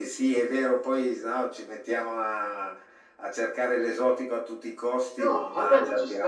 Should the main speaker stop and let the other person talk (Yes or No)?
Yes